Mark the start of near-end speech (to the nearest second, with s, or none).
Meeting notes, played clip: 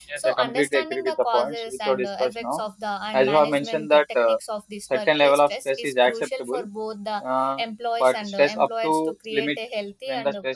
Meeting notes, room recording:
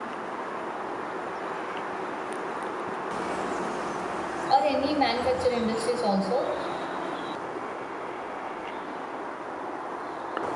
4 s